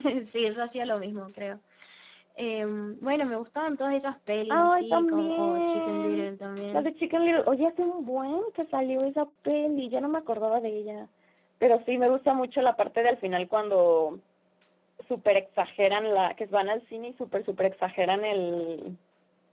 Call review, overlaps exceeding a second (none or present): present